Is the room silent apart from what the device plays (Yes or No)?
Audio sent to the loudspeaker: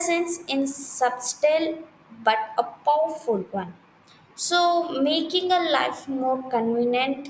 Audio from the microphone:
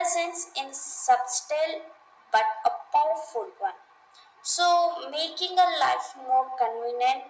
Yes